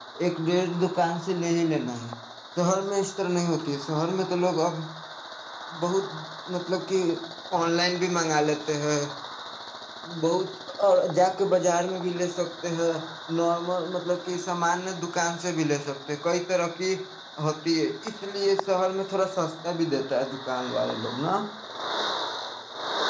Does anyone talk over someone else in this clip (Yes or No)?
No